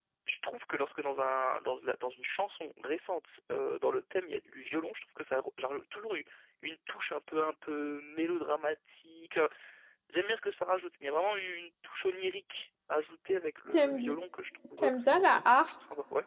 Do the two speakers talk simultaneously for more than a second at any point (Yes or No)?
No